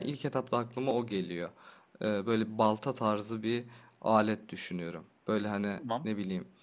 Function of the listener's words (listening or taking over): listening